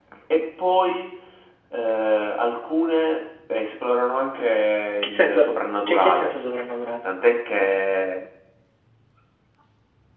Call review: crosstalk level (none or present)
present